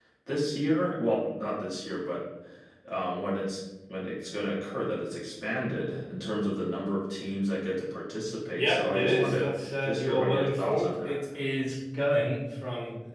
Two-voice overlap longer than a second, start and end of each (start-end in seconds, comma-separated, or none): 8.6-11.2